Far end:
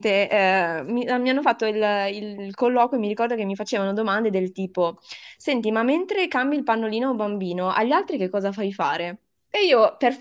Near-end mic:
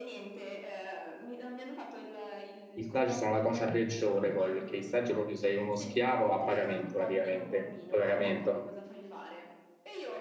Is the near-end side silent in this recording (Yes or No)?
No